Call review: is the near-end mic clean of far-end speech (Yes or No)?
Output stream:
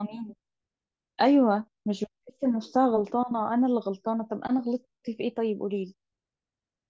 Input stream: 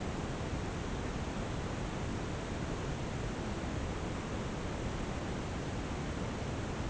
Yes